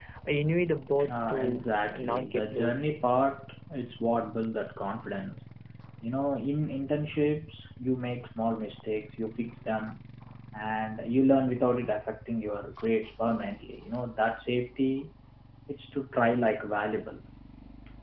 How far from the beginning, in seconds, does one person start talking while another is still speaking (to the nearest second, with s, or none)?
1 s